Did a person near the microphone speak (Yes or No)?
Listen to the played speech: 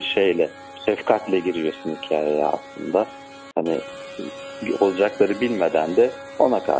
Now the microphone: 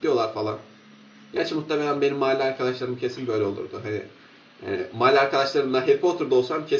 Yes